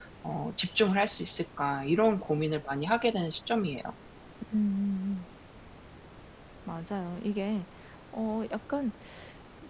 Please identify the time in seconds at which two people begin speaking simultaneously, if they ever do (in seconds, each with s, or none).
none